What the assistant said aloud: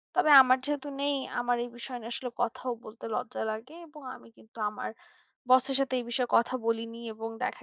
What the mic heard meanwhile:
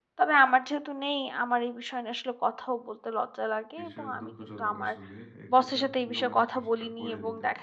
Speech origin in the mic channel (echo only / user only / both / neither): both